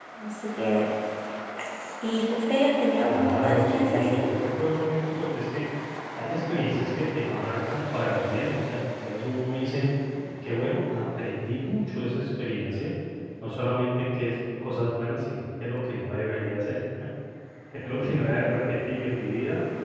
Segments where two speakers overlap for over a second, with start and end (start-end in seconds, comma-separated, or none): 3.1-4.3